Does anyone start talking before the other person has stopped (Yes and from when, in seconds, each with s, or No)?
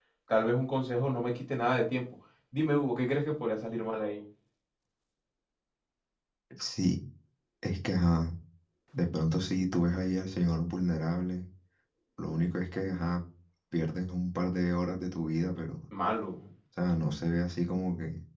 No